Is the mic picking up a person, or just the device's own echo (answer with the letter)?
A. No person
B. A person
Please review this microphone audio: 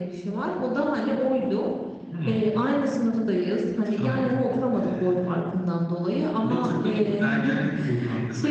A